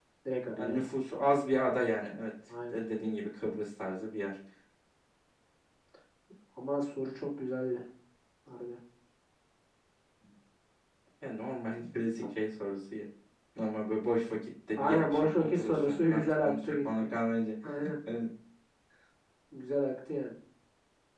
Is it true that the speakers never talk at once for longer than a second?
No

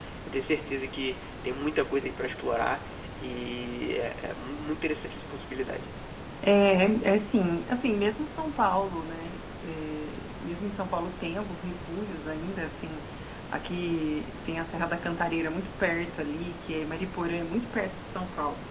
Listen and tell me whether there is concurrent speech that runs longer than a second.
No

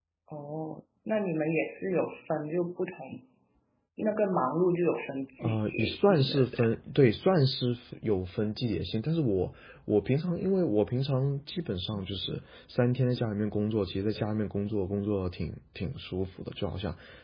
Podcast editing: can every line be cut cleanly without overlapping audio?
No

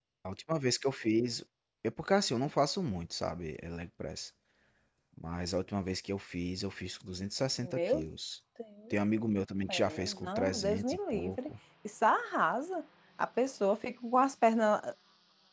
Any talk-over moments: Yes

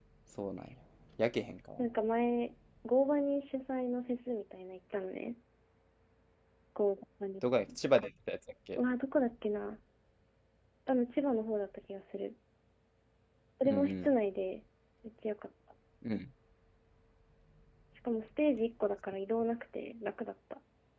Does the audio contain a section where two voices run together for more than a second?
No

